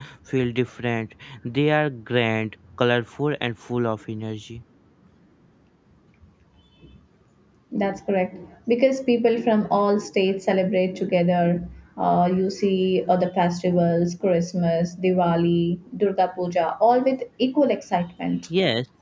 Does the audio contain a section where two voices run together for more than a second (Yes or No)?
No